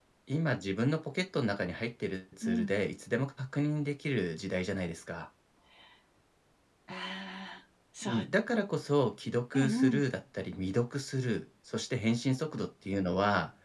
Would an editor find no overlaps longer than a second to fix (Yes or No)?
Yes